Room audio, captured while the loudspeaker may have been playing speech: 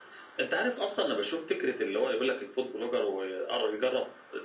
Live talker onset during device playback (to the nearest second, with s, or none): none